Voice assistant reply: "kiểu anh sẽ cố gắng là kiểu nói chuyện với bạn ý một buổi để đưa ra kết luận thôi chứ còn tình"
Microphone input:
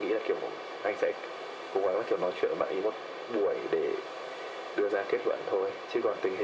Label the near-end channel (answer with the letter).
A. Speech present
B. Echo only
B